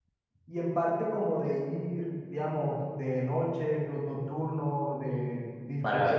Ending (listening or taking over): taking over